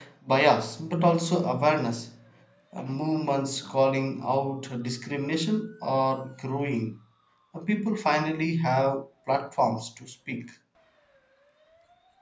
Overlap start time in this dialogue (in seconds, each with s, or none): none